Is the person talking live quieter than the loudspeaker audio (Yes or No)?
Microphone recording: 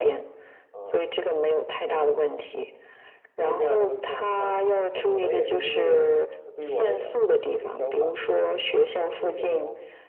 Yes